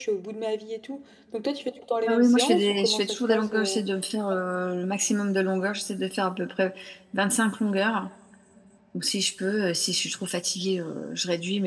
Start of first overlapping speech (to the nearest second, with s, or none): 2 s